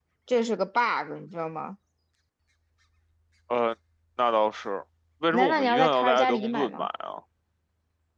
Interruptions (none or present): present